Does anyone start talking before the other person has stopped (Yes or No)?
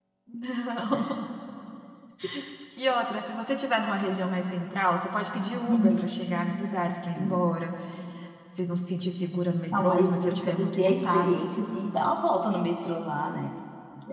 Yes